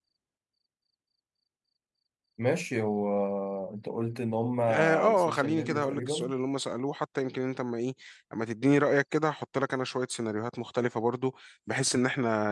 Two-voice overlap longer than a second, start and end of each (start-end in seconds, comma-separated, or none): 4.7-6.3